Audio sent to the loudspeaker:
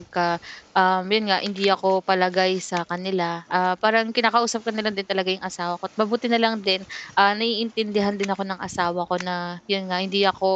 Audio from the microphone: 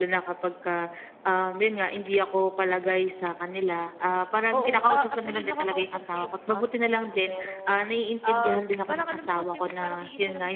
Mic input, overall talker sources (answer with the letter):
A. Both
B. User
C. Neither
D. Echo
A